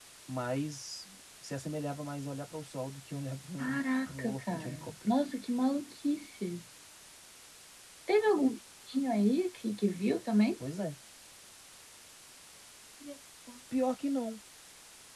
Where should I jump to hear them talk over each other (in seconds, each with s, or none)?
3.6 s